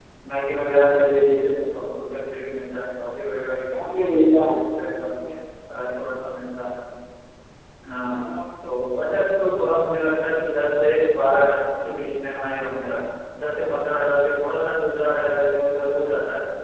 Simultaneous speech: Yes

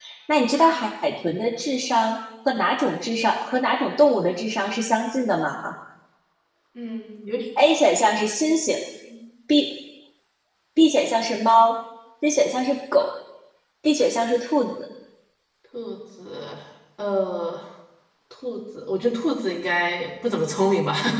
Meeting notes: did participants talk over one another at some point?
No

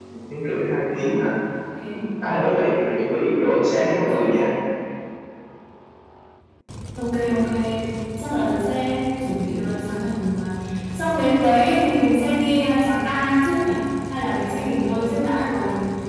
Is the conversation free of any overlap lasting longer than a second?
Yes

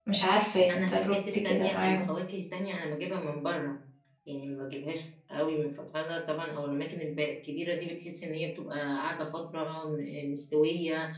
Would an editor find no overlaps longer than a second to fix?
No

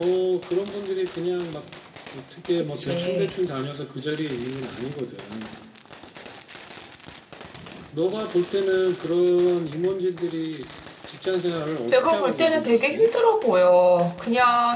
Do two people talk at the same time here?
Yes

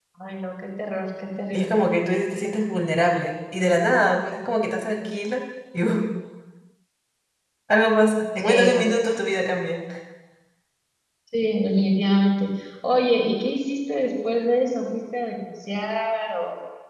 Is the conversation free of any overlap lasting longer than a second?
Yes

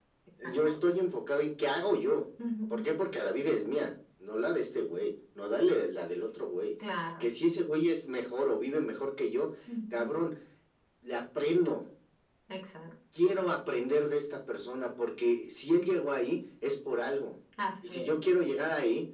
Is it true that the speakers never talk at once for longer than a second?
Yes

